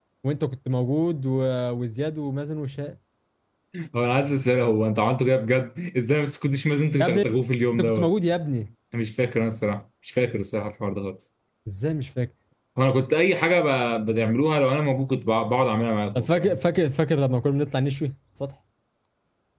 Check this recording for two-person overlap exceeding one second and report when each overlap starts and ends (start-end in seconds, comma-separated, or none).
none